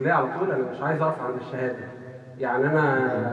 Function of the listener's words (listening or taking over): listening